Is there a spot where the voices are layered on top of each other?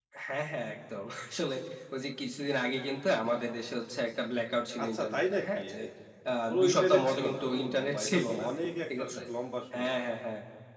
Yes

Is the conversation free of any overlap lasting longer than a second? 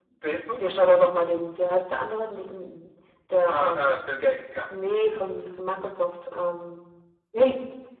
Yes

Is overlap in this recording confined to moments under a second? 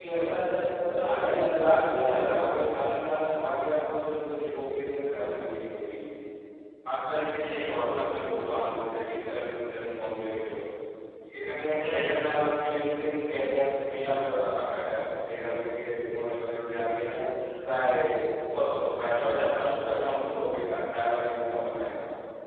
No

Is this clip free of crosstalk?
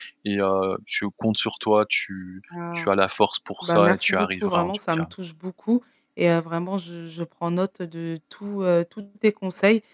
No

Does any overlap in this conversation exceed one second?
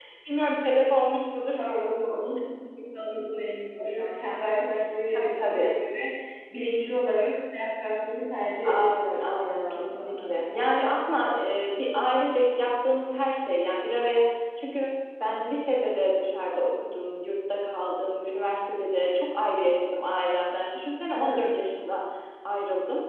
Yes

